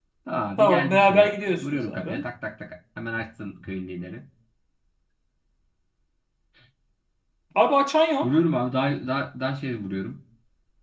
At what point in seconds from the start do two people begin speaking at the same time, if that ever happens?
0.6 s

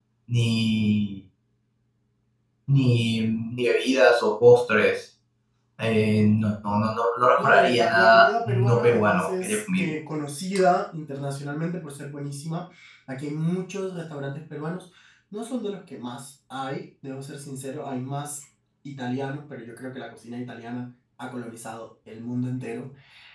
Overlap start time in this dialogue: 7.4 s

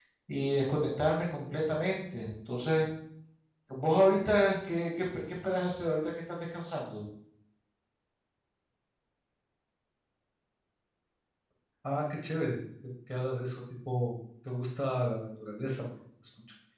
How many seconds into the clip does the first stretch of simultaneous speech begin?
none

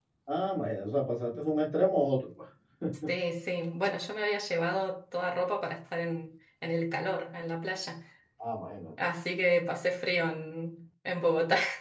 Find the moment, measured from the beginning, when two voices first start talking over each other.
none

